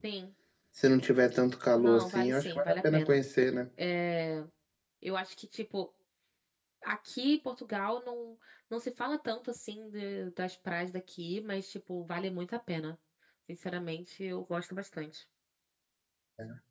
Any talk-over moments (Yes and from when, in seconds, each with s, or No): Yes, from 1.8 s